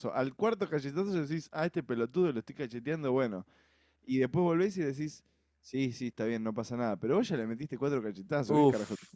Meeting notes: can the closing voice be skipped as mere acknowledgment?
No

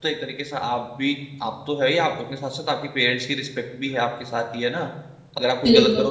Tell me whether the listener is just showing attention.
Yes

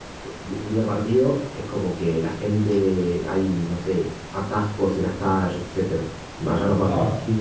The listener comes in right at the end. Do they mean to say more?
Yes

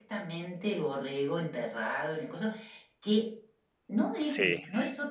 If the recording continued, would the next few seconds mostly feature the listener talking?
No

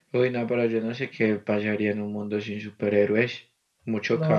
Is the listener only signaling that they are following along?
No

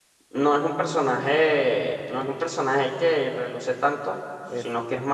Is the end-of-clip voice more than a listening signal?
No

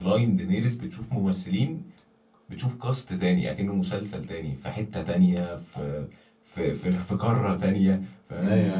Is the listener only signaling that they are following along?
No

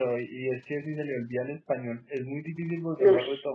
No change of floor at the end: Yes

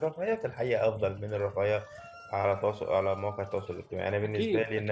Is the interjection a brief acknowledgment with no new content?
No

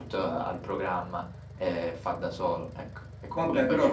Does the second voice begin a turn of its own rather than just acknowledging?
Yes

